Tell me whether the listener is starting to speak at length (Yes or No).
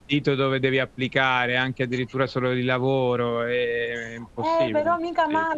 Yes